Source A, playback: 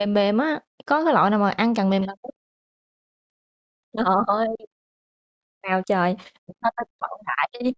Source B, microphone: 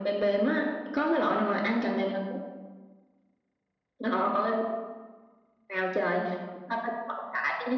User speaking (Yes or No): No